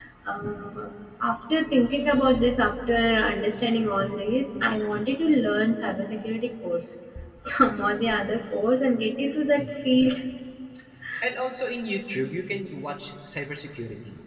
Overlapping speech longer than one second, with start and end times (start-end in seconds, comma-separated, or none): none